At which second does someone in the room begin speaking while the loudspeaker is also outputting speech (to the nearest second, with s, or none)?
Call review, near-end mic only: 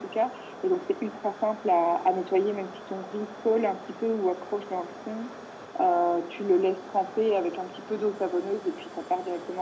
none